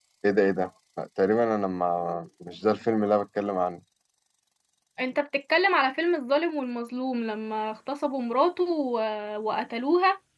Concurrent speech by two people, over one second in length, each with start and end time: none

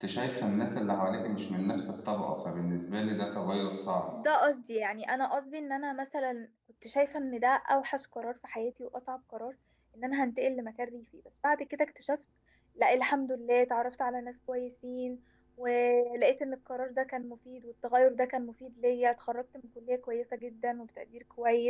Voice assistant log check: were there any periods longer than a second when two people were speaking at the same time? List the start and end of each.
none

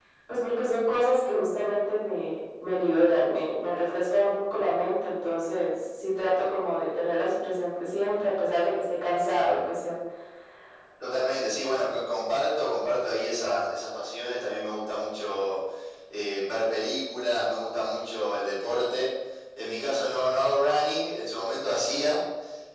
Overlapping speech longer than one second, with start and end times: none

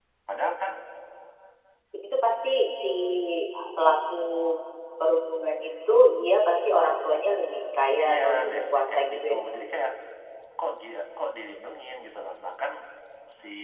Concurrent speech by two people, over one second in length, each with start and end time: 8.1-9.4

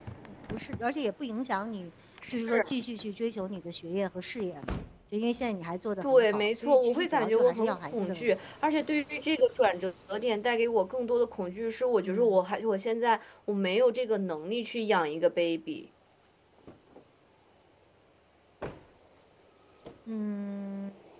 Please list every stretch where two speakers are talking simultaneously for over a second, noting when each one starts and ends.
6.0-8.3

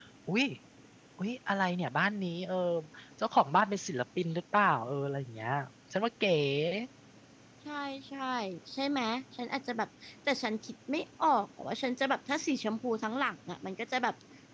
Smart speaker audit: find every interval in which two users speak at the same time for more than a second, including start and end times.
none

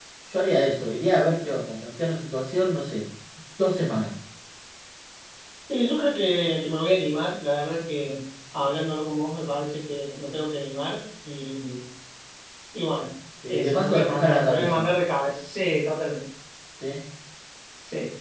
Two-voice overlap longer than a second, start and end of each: 13.5-14.9

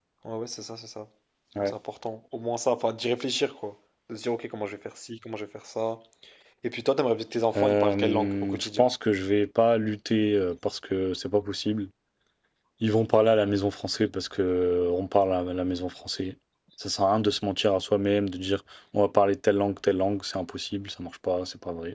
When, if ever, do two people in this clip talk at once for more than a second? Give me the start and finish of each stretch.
7.6-8.9

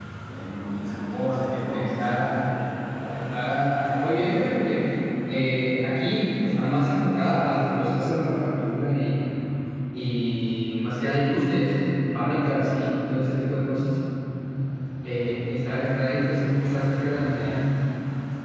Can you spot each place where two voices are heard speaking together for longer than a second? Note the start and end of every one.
1.1-2.5

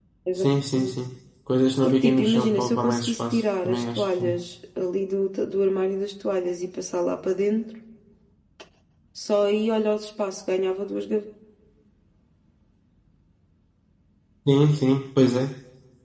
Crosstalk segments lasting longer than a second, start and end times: 1.8-4.4

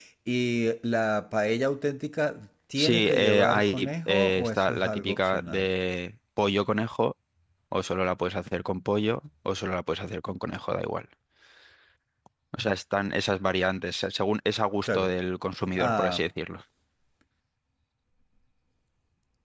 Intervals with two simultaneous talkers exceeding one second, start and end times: 2.8-5.7

